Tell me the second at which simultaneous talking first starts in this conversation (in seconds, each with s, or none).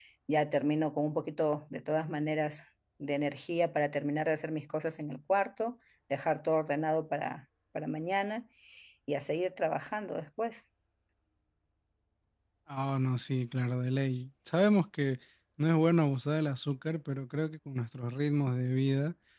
none